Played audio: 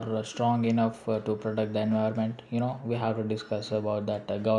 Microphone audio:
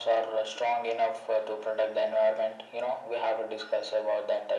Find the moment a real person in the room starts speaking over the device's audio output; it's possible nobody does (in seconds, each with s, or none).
none